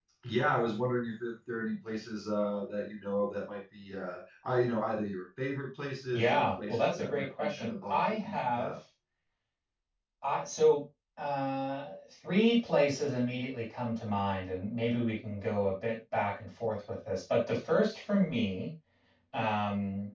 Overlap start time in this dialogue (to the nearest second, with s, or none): 6 s